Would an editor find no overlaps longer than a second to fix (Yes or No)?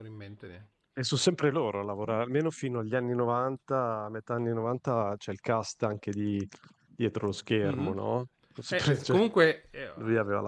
Yes